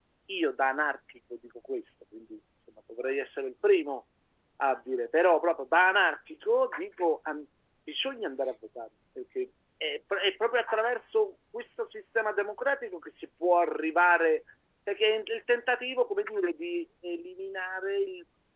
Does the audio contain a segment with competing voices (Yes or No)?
No